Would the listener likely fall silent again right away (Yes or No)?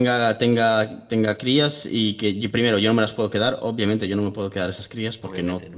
Yes